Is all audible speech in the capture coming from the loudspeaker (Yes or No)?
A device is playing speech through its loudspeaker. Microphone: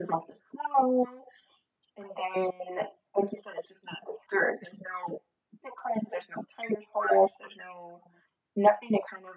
Yes